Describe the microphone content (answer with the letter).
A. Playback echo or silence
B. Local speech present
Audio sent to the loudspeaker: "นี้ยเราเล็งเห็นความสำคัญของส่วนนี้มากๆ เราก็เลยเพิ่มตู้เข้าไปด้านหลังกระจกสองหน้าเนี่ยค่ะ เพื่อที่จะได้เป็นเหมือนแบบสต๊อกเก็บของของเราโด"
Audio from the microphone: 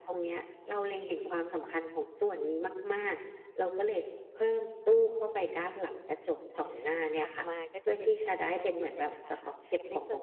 B